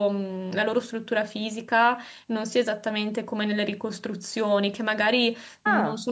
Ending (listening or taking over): listening